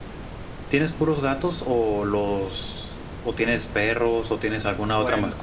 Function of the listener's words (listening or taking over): listening